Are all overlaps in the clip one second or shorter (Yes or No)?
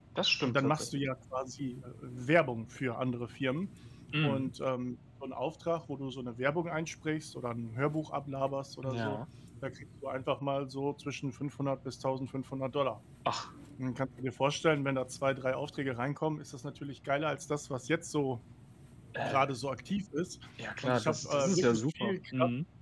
No